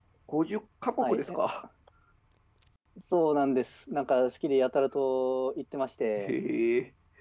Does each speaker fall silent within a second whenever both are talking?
Yes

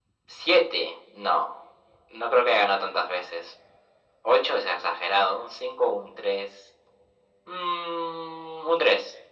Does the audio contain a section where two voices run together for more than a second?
No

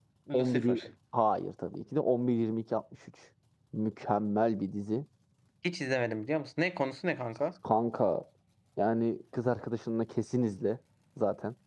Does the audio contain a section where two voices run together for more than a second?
No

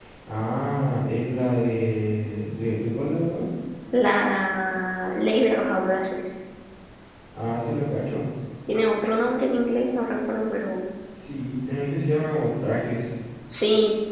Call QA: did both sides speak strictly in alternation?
Yes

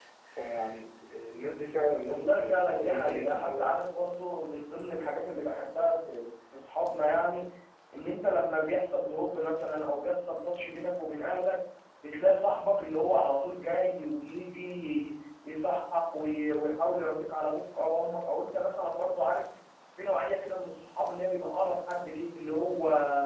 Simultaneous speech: Yes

